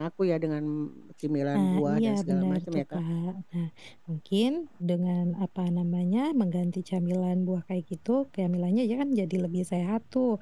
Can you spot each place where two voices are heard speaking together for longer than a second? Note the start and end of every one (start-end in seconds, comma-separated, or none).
1.5-3.0